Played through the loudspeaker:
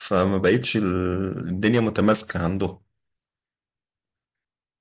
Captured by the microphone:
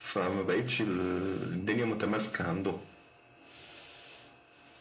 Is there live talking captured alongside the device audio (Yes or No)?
No